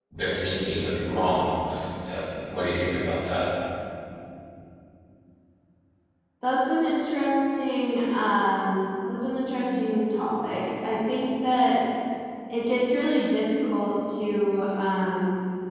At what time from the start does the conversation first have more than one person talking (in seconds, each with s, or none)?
none